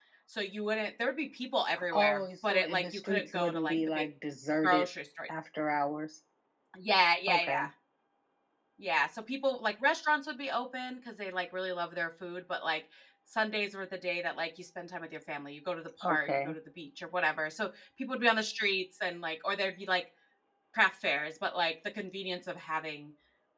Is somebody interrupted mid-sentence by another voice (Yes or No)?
Yes